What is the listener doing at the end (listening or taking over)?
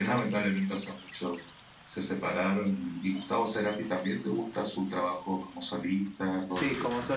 taking over